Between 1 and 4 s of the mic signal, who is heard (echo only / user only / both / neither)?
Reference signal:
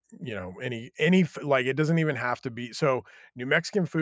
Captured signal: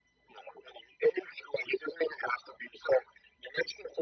echo only